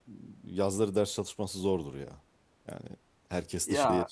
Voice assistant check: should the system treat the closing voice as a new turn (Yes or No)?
No